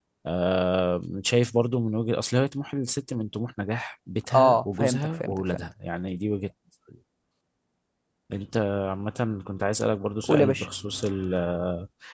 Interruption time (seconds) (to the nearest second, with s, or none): 4 s